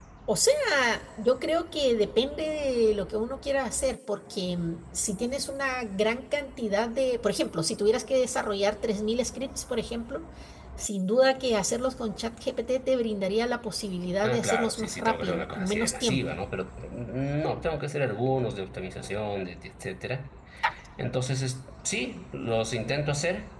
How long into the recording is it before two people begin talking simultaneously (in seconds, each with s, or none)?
14.2 s